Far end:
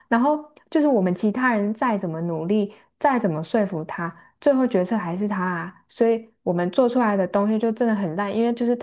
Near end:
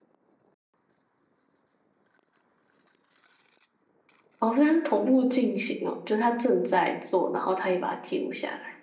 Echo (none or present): none